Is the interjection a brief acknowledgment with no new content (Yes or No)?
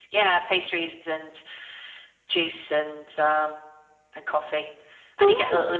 Yes